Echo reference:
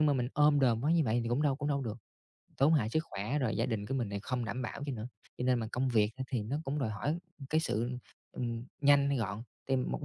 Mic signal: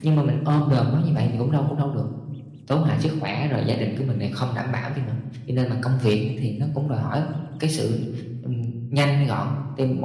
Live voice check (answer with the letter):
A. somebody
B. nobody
B